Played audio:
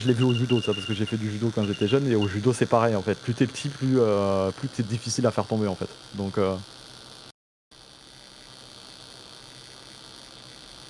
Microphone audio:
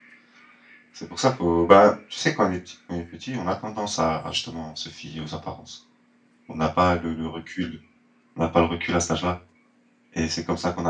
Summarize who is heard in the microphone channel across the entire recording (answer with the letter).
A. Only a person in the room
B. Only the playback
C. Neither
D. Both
A